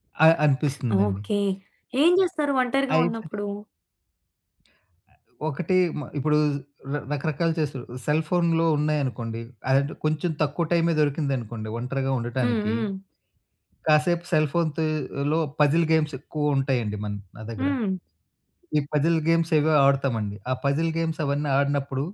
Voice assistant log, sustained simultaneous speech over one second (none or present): none